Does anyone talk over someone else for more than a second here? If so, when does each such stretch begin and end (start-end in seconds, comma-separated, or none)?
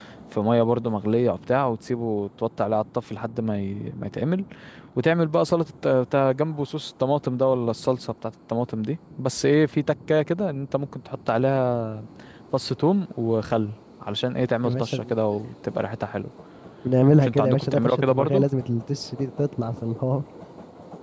17.2-18.4